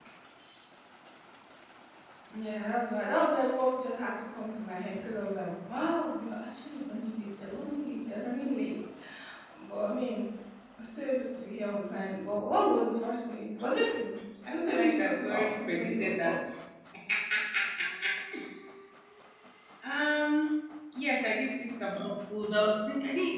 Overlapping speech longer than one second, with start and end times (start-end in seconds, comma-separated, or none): 14.5-16.4